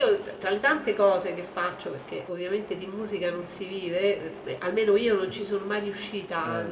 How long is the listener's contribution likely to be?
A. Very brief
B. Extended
A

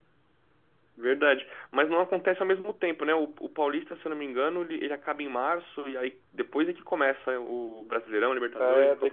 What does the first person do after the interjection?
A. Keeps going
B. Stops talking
B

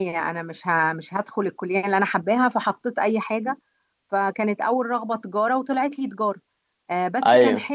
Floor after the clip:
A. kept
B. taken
A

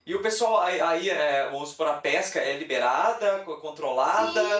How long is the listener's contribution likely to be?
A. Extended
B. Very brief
A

